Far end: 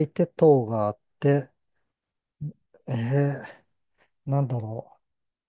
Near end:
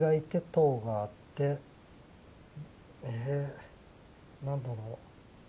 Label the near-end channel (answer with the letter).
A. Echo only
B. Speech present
A